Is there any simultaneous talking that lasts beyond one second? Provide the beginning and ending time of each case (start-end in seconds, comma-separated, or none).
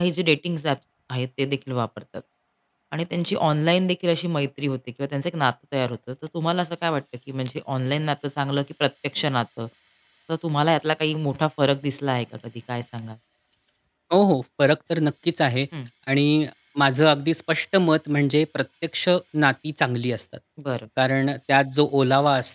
none